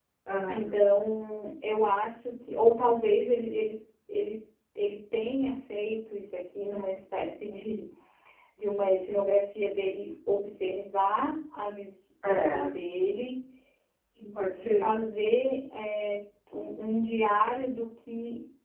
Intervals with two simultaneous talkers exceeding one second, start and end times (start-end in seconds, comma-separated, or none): none